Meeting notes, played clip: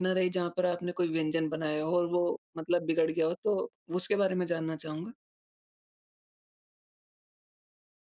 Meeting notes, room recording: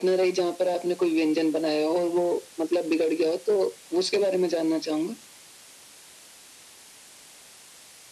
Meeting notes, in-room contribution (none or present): none